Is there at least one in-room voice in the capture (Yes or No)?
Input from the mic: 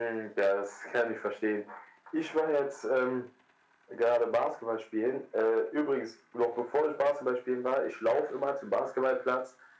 No